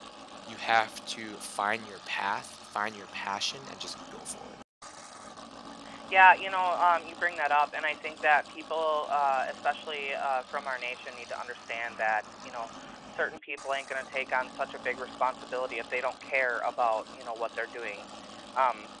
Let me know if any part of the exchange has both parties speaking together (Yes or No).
No